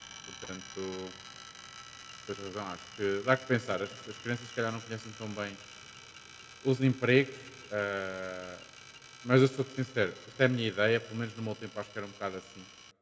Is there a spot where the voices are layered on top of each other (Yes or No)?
No